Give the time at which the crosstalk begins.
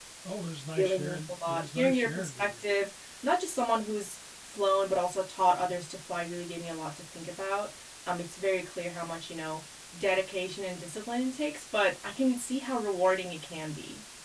0.8 s

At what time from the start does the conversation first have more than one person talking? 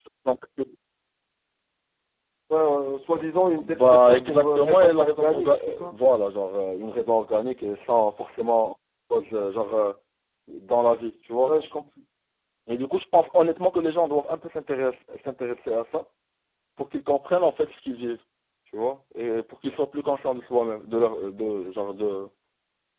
3.6 s

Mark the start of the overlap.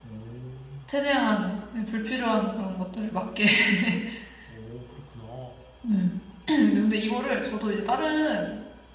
none

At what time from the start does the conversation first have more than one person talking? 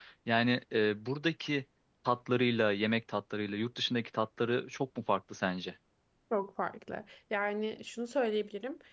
none

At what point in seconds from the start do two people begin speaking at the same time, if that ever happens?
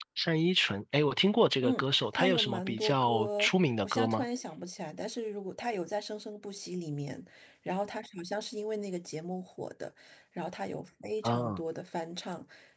1.6 s

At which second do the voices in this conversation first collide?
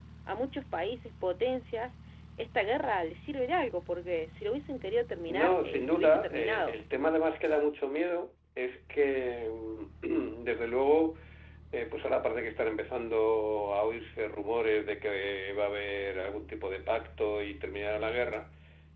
5.3 s

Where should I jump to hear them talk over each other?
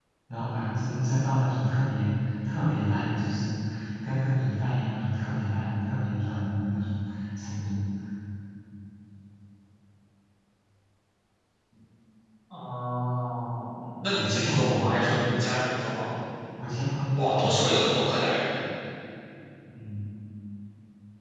14.0 s

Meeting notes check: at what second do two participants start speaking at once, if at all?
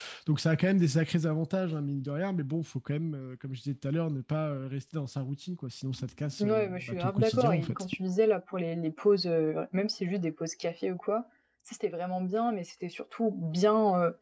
6.4 s

